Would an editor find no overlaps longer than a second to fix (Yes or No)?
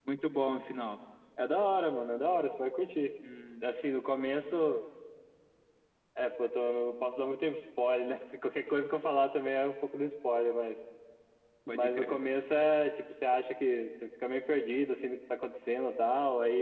Yes